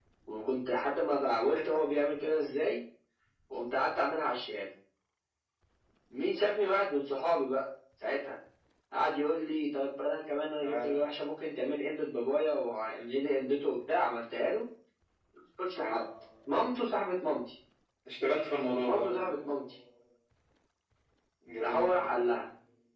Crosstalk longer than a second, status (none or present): none